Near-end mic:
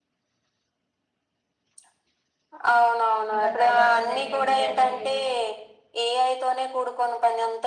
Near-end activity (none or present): present